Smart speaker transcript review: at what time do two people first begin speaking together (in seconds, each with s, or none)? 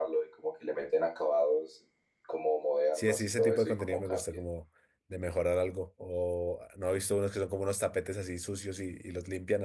3.0 s